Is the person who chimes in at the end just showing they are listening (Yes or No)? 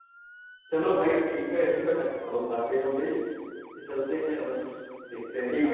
No